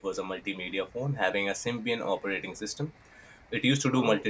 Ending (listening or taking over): listening